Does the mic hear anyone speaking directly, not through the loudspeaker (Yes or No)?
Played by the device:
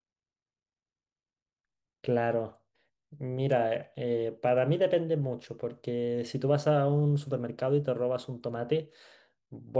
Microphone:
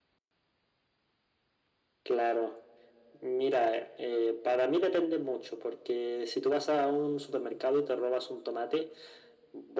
No